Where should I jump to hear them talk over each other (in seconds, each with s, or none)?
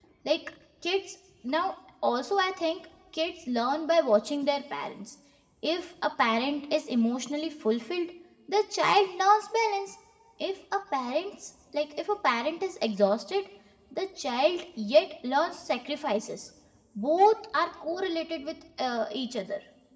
none